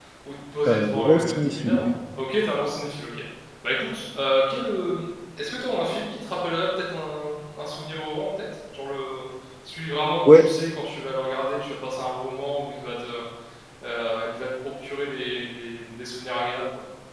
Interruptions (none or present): present